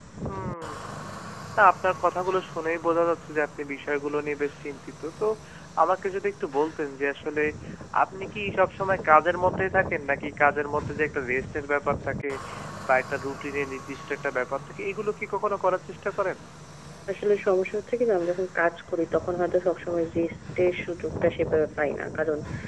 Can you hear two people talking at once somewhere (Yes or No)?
No